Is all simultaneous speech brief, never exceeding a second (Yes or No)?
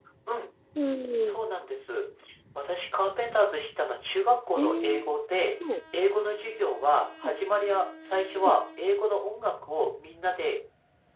Yes